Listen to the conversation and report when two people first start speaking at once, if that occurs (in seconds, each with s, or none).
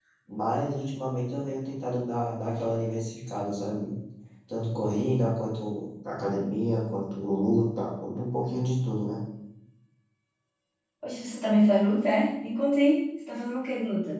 none